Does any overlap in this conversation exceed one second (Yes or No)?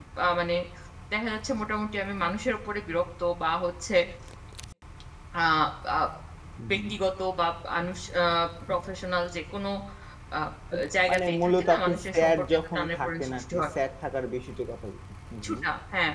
Yes